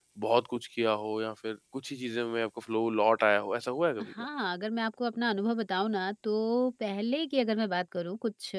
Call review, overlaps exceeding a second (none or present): none